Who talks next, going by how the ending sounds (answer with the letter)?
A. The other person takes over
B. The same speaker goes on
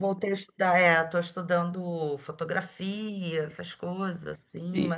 B